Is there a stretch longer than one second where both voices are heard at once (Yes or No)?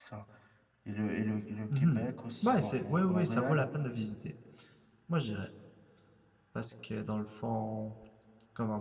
Yes